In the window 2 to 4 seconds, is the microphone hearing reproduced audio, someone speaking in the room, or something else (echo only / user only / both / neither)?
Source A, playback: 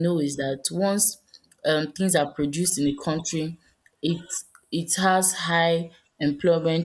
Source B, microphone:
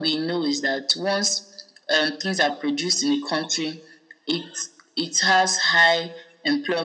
echo only